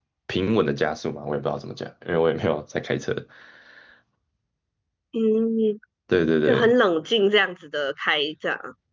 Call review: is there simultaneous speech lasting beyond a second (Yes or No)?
No